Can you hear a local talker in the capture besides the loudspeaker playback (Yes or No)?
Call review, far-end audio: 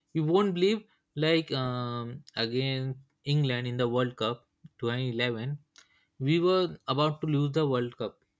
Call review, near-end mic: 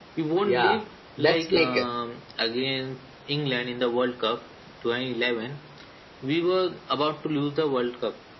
Yes